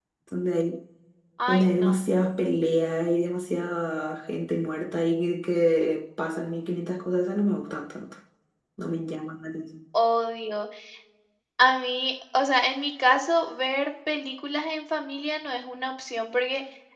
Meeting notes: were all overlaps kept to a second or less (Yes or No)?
Yes